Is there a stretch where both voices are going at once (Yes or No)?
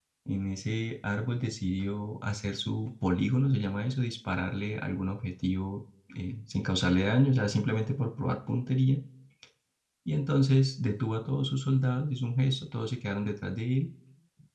No